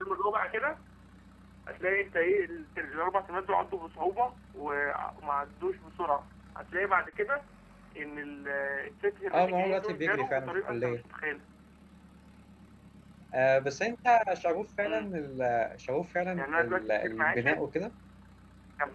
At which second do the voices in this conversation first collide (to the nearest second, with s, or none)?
9 s